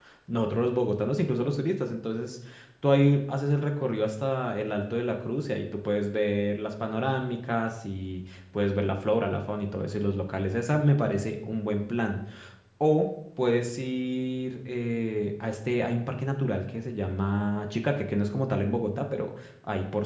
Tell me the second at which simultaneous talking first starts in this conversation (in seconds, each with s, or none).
none